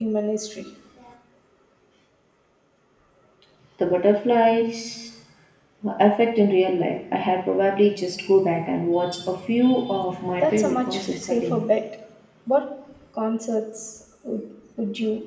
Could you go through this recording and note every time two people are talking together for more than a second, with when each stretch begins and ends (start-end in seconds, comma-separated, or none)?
10.4-11.6